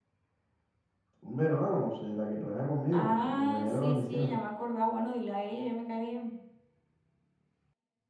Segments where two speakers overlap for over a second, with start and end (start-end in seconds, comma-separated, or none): 2.9-4.4